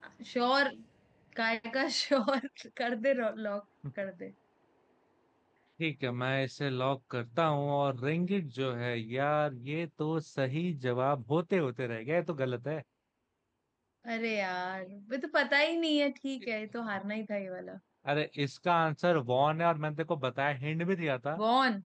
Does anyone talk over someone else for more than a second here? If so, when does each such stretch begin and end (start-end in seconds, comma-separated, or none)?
none